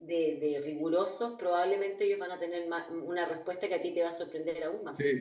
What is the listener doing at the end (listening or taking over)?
taking over